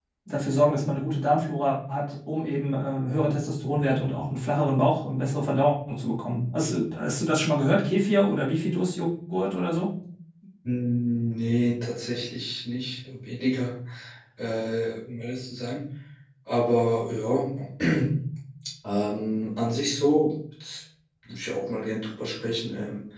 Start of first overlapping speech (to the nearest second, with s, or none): none